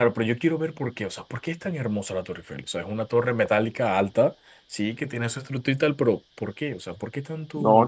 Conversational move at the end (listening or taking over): taking over